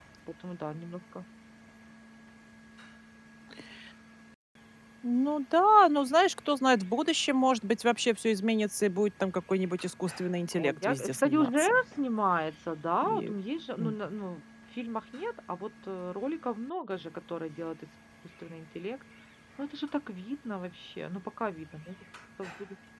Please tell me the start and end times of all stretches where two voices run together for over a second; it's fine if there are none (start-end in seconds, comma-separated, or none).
10.5-11.8